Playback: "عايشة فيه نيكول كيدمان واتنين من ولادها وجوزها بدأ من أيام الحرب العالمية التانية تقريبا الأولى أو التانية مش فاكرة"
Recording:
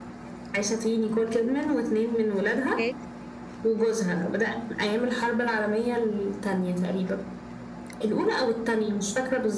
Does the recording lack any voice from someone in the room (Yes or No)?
No